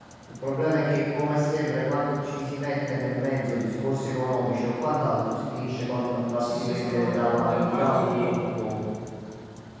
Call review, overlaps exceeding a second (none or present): present